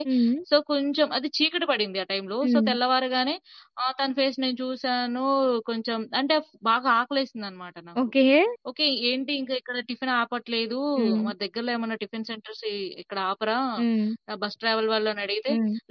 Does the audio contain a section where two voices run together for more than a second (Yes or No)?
No